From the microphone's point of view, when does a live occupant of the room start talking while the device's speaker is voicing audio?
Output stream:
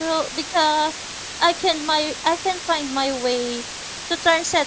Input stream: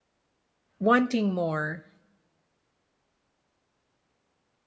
0.8 s

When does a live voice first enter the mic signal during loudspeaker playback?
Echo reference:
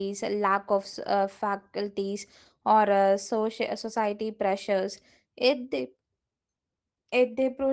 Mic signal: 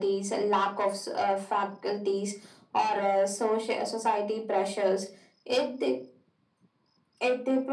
none

